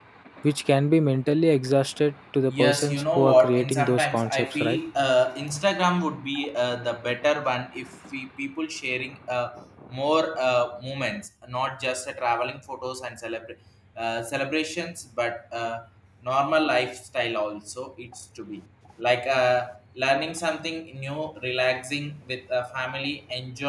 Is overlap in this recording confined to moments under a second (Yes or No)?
No